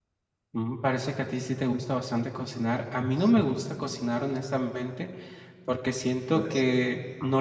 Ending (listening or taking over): listening